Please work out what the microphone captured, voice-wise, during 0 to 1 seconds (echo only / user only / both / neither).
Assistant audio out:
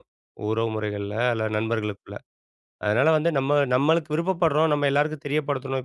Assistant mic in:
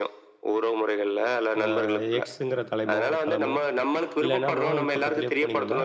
echo only